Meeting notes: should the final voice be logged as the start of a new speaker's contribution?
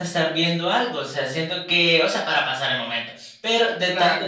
No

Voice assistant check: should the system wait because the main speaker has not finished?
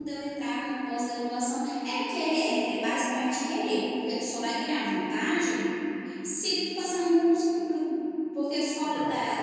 Yes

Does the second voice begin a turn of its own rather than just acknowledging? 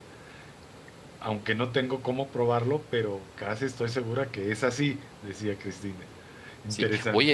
Yes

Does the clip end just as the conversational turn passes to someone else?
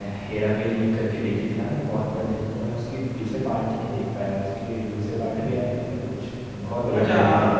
Yes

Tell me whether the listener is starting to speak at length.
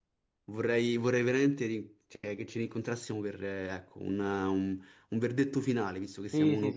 Yes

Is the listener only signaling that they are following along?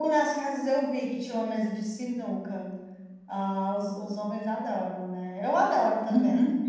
No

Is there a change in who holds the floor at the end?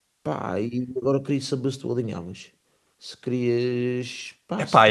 Yes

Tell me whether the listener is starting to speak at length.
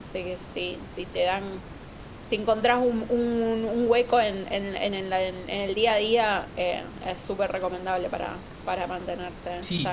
Yes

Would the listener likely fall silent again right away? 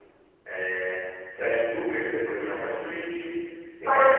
No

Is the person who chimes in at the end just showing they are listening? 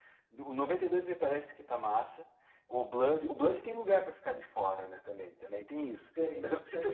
No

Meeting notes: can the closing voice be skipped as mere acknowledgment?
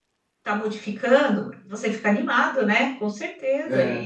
No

